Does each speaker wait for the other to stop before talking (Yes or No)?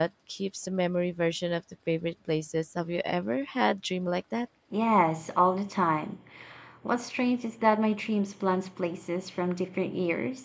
Yes